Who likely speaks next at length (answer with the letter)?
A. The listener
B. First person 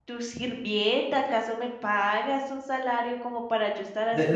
A